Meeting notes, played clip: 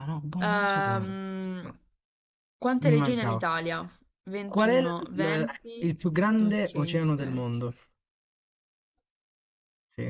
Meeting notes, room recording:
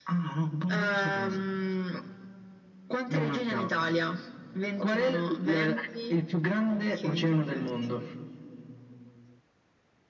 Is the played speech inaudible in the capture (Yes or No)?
No